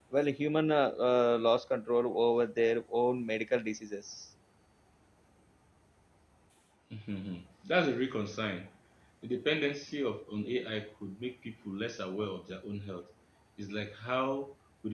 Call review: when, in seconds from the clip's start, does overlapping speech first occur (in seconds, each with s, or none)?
none